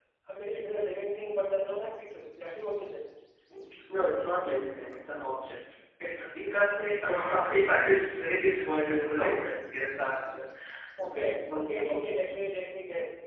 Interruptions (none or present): present